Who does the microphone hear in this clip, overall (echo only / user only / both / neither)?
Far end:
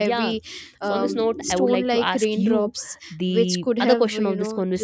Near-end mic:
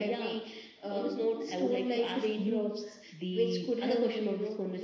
echo only